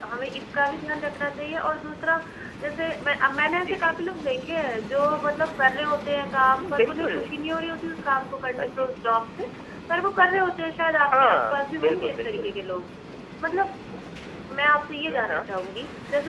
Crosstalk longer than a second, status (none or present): present